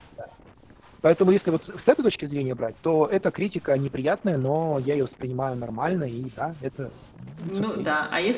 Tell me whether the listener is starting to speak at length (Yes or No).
Yes